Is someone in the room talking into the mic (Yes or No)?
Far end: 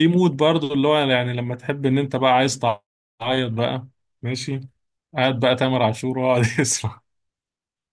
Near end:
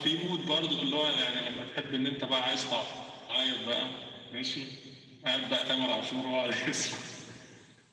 No